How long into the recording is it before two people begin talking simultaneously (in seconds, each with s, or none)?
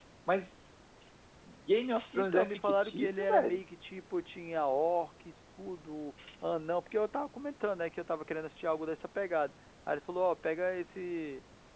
2.1 s